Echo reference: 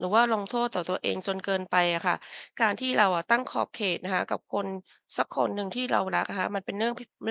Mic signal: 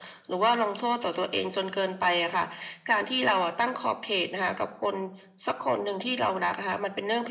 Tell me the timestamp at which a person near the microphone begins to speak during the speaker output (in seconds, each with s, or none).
none